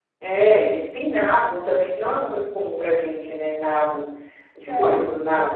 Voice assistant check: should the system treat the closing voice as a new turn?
No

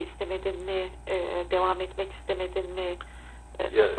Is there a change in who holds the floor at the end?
Yes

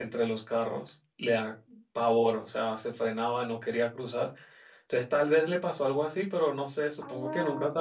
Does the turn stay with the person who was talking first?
No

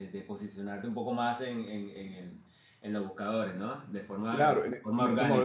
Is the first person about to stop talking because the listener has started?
Yes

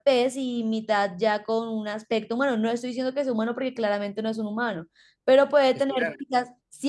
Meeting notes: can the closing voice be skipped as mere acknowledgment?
Yes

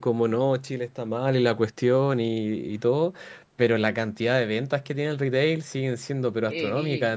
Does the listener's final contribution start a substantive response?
No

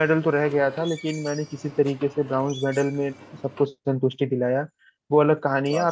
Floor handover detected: No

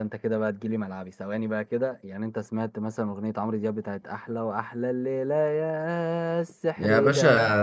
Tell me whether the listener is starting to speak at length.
Yes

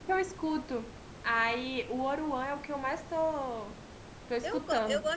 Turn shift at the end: Yes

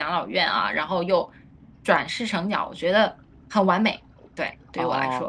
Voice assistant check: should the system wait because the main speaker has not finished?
No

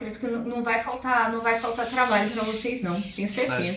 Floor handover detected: Yes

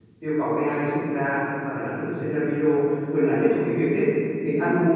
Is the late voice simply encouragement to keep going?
Yes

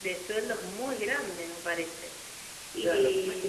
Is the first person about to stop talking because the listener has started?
Yes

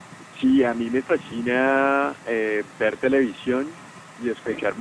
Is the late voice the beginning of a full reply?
No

